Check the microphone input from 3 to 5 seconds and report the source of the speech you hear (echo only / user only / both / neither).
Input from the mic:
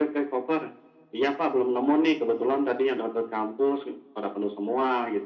echo only